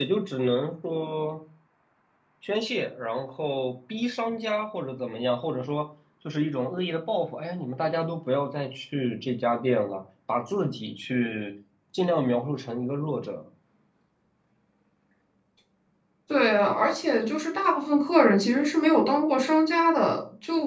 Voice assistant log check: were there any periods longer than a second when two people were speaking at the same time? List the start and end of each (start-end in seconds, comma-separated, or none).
none